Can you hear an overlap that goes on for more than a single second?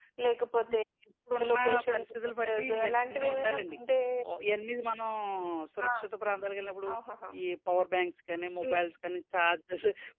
Yes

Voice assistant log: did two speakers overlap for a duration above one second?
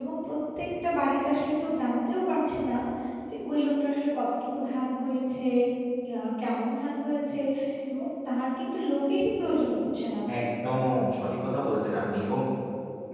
No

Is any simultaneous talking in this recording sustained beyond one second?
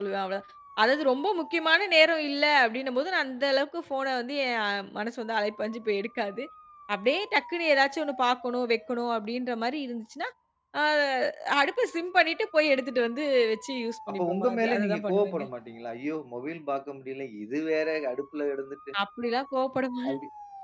Yes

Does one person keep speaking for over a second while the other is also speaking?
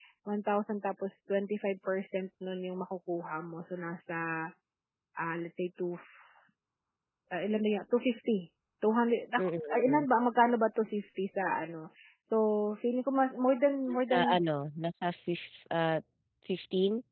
No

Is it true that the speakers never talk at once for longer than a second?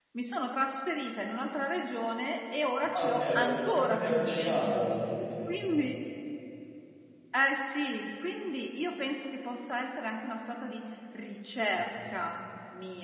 No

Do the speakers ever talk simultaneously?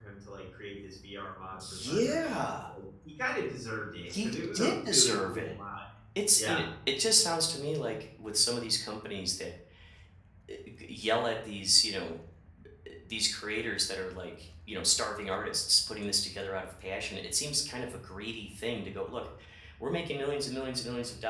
Yes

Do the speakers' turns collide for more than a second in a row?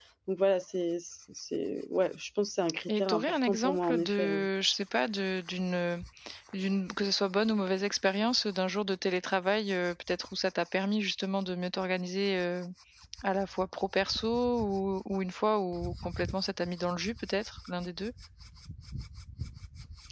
Yes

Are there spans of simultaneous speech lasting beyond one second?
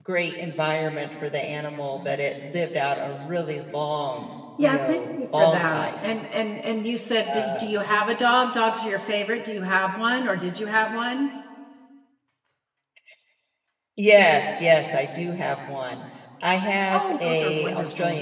Yes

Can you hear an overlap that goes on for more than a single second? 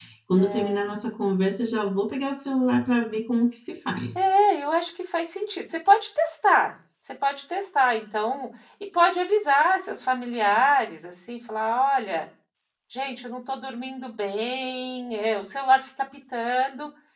No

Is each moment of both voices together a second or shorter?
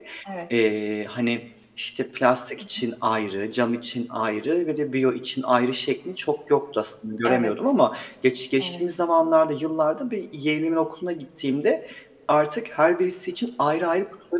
Yes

